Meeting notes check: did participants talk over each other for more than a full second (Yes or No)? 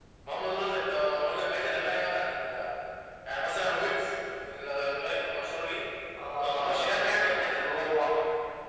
Yes